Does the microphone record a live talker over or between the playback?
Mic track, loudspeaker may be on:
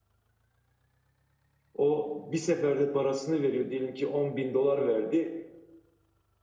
Yes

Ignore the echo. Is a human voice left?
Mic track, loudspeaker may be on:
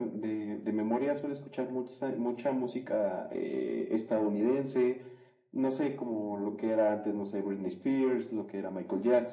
No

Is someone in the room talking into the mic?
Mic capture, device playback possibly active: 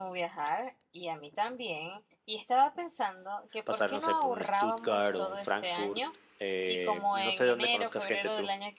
Yes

